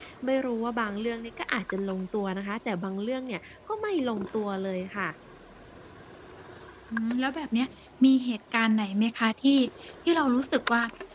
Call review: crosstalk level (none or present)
none